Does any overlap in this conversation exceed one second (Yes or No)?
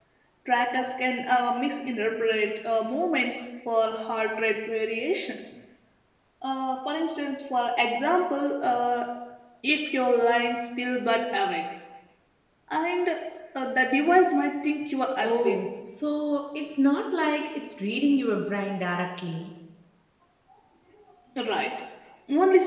No